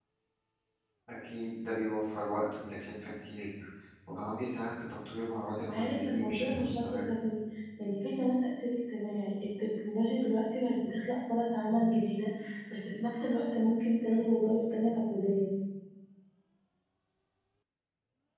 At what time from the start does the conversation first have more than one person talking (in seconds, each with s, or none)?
5.7 s